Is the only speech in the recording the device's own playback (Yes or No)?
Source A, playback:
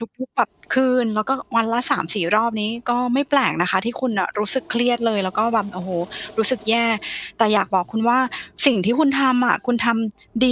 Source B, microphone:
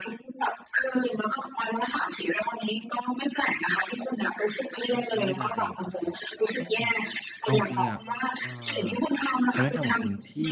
No